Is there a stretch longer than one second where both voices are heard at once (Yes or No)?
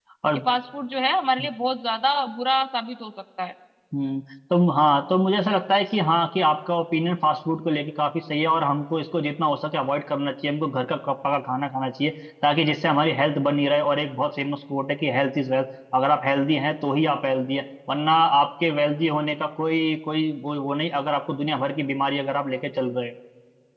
No